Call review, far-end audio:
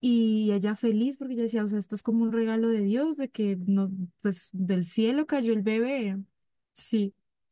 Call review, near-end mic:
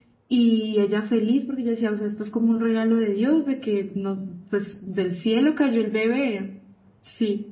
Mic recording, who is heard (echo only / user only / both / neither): echo only